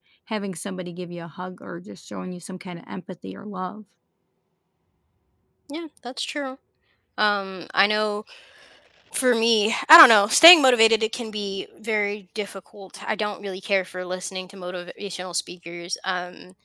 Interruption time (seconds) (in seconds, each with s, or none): none